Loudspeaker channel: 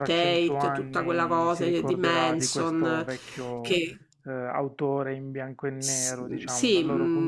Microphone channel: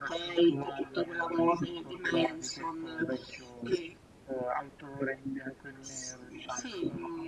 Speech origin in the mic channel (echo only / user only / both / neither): echo only